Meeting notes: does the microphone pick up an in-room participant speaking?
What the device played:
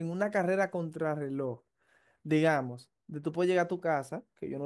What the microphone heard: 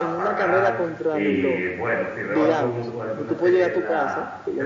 Yes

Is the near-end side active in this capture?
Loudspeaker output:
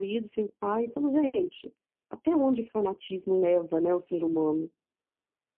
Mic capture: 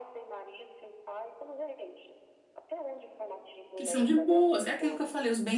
Yes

